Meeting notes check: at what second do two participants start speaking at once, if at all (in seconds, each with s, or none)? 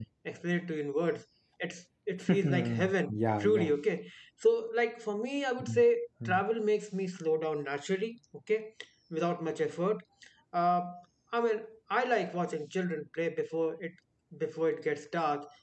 2.3 s